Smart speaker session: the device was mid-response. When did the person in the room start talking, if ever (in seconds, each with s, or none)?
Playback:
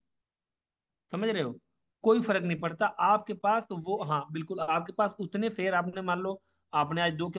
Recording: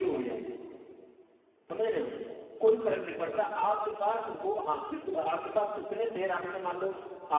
none